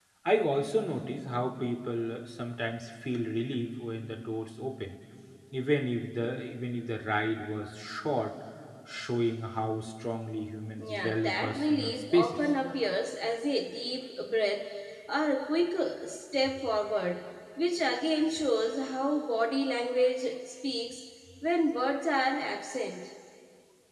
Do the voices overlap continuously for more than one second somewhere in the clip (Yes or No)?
Yes